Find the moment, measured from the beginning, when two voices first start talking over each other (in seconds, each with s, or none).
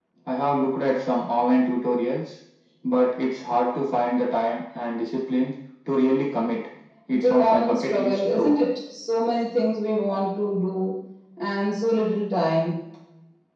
7.1 s